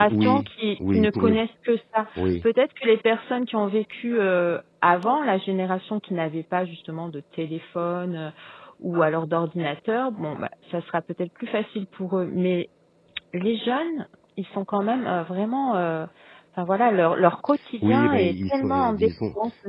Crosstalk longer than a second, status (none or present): present